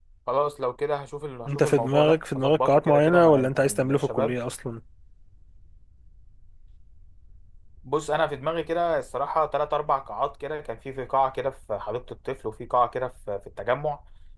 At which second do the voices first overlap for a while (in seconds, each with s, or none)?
1.5 s